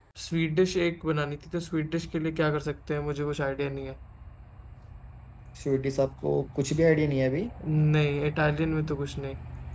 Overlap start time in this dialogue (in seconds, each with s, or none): none